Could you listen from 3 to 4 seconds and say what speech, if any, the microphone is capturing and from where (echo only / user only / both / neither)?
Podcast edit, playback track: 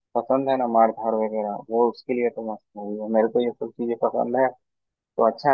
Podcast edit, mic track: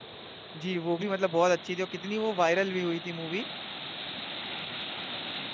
user only